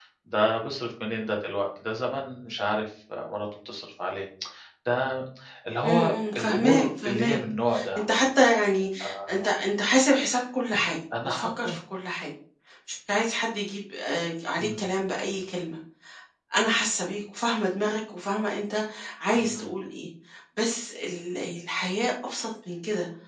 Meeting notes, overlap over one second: present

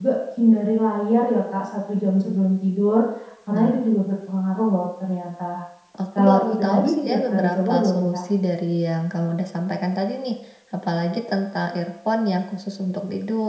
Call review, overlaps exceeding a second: present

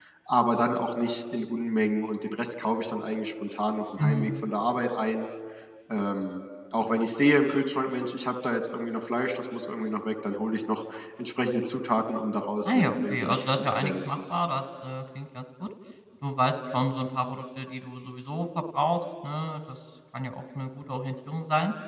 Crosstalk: present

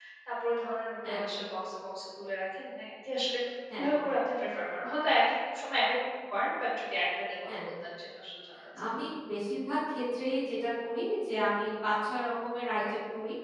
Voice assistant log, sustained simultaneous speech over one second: none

